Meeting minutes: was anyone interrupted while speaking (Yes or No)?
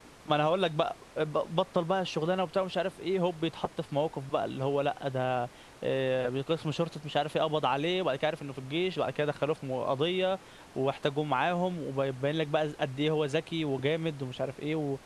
No